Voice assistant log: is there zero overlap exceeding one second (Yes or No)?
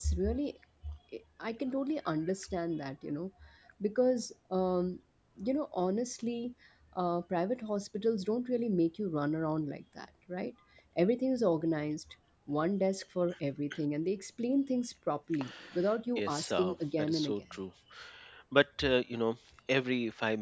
No